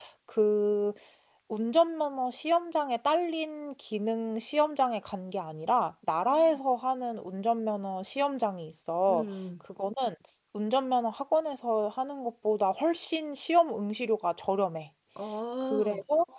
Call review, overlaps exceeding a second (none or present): none